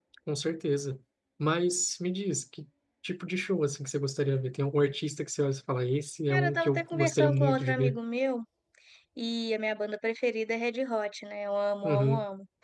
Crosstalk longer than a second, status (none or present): present